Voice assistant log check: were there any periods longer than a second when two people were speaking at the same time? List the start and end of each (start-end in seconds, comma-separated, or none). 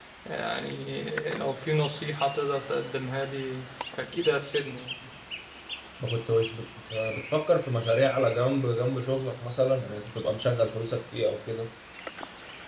none